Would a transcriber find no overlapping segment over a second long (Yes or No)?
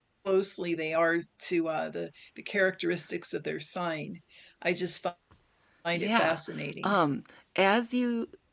Yes